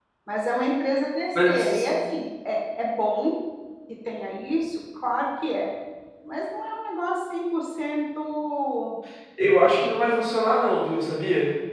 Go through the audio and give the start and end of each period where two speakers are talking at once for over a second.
none

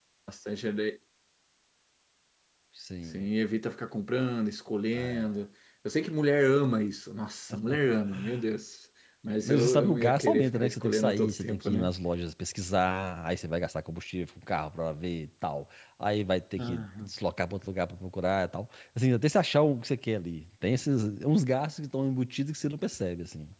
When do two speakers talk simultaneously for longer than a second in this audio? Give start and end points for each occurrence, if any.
9.4-11.9

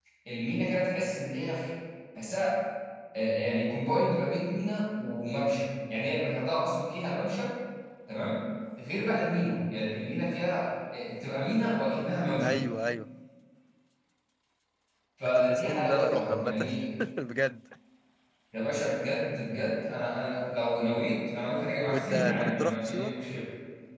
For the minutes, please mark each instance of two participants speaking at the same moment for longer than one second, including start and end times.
15.2-16.7, 21.9-23.1

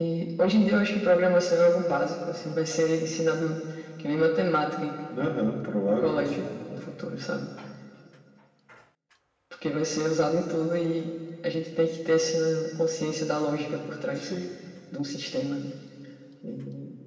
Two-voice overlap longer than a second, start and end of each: 5.2-6.5

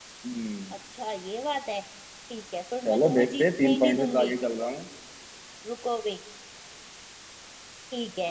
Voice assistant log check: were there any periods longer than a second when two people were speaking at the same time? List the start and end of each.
2.9-4.3

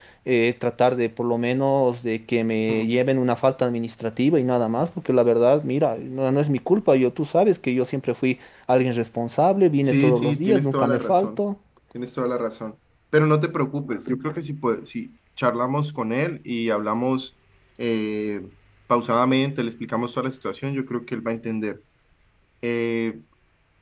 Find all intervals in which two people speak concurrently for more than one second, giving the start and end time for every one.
9.8-11.4

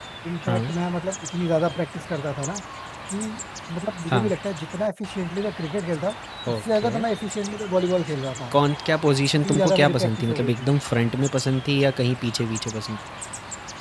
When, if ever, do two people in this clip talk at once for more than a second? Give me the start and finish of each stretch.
9.4-10.7

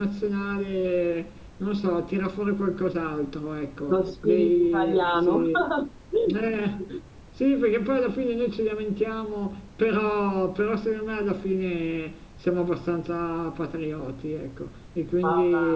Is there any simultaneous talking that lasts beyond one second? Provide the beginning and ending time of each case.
3.9-5.5

